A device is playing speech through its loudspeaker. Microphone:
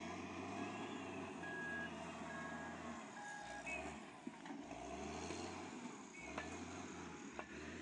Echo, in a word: none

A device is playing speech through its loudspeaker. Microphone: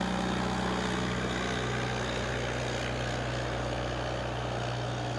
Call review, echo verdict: none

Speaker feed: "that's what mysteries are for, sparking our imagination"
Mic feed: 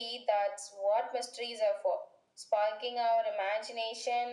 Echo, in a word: present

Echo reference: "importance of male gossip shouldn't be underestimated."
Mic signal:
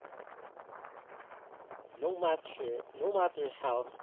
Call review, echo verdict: none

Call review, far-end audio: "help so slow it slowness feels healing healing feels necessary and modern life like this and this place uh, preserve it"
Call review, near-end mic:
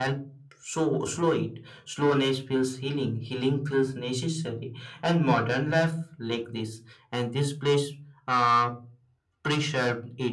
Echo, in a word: present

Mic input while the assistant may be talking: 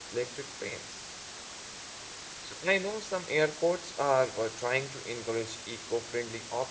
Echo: none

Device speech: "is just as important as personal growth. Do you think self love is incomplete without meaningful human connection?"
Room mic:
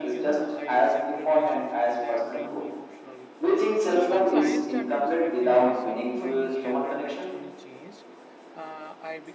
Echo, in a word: present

